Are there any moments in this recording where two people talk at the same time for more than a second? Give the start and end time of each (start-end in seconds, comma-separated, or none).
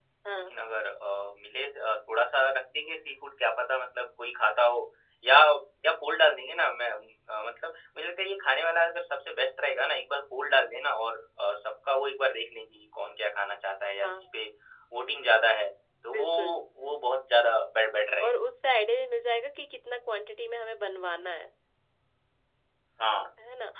none